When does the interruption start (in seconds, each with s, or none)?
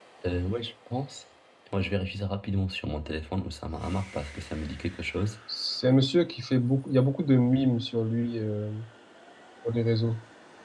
none